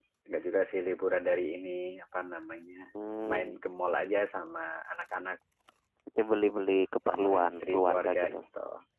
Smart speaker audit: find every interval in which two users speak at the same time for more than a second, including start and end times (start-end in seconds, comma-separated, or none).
7.1-8.4